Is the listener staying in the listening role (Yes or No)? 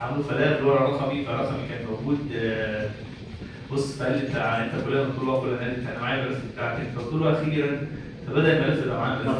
Yes